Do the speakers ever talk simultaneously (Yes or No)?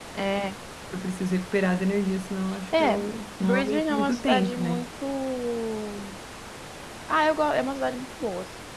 Yes